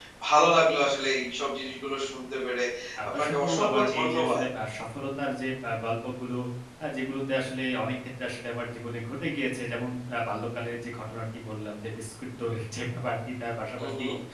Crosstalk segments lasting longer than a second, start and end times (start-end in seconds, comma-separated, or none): 3.2-4.4